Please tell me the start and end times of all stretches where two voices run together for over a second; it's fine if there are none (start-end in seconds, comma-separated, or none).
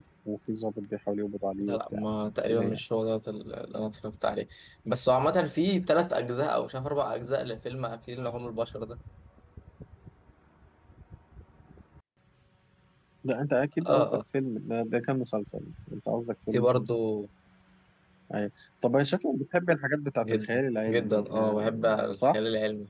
20.2-22.4